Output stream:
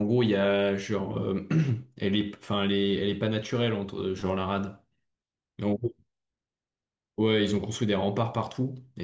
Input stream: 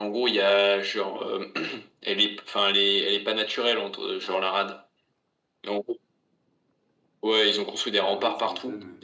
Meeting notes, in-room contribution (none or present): present